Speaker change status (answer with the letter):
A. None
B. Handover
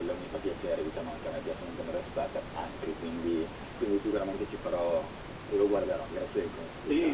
B